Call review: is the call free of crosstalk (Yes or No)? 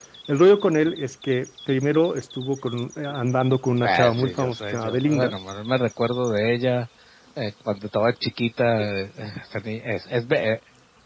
No